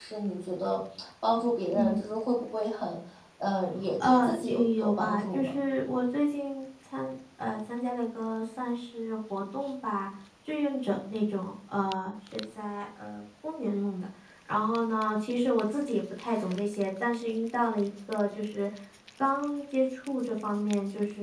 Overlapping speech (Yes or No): Yes